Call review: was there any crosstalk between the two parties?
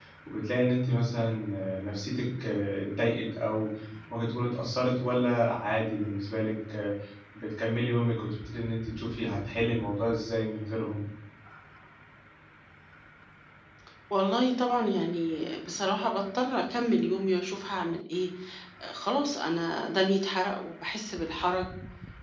No

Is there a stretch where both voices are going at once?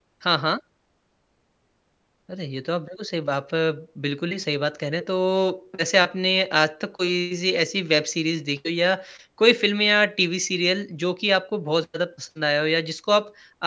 No

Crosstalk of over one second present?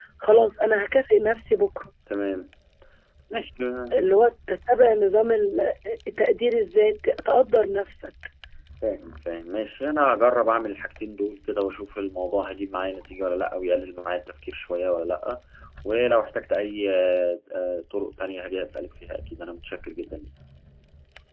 No

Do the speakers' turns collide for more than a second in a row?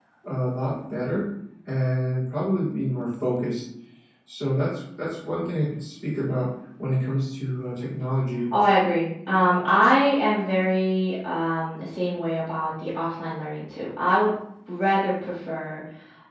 No

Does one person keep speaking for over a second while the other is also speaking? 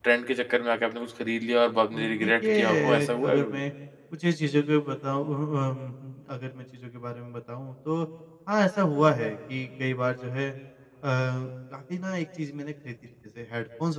Yes, from 1.9 s

